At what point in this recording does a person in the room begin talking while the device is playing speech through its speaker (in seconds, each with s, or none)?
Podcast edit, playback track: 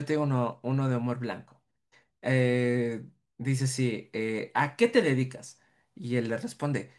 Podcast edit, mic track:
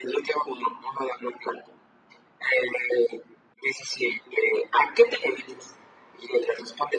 none